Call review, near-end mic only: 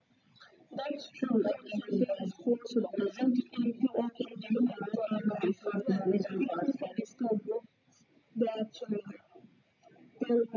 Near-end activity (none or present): present